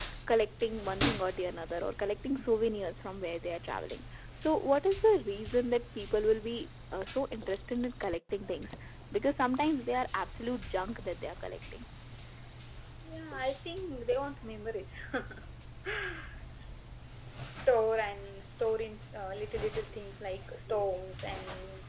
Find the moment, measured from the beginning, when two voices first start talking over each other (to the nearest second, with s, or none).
none